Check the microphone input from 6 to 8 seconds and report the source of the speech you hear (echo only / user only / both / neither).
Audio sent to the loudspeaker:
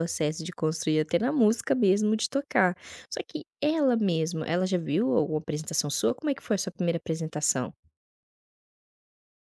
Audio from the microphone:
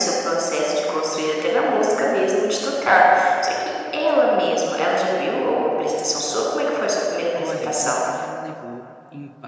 both